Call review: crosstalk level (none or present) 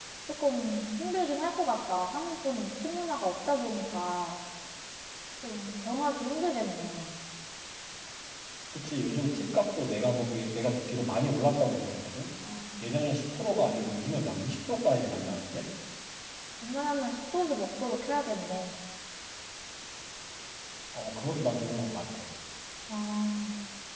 none